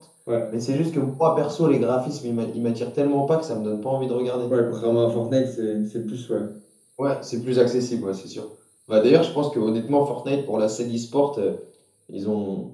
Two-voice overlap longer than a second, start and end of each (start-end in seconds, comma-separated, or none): none